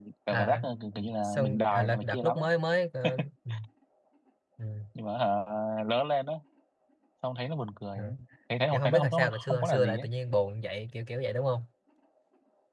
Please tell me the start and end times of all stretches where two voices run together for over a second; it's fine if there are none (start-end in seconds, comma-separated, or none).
1.2-2.5, 8.7-10.1